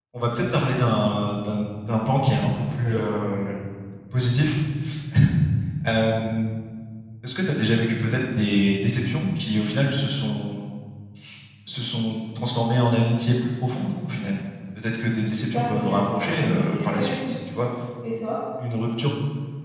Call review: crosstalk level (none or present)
present